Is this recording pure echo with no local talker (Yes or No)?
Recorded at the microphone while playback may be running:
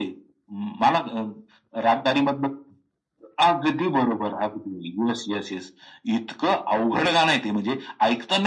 Yes